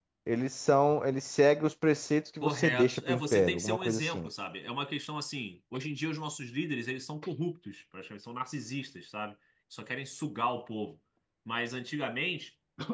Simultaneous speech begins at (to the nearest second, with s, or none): 2 s